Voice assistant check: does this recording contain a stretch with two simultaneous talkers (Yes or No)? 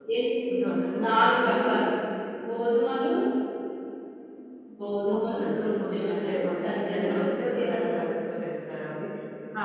Yes